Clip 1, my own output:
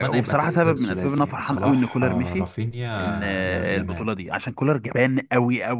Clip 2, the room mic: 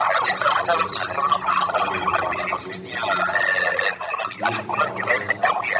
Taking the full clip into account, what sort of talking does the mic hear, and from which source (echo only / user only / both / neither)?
both